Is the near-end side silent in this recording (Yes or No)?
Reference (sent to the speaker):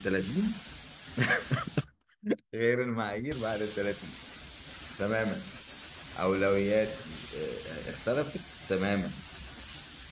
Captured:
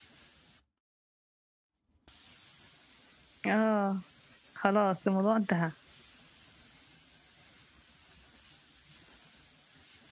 No